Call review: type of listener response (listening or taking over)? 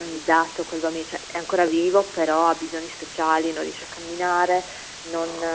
listening